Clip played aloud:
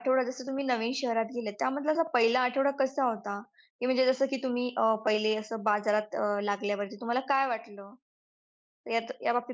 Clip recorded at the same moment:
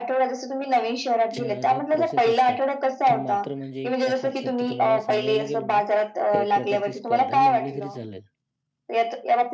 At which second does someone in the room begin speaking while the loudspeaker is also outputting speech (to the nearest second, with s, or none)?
1 s